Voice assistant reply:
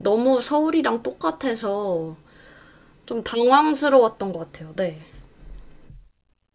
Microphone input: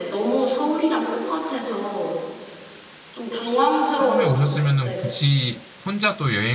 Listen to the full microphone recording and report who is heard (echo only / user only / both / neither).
both